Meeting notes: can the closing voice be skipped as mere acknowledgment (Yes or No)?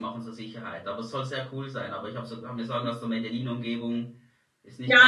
No